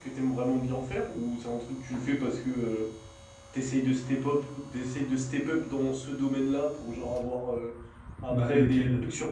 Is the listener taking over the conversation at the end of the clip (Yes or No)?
No